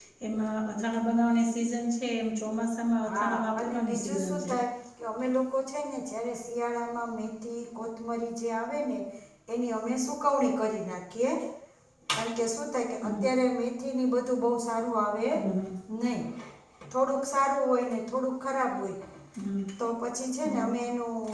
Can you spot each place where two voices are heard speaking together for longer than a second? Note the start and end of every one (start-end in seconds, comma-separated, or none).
3.1-4.5